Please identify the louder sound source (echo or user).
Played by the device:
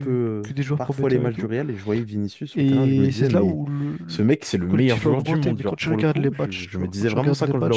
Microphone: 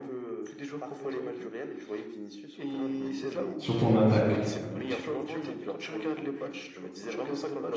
user